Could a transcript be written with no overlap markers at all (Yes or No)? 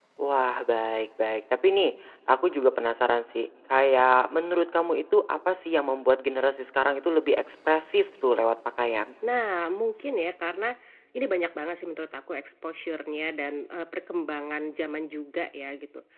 Yes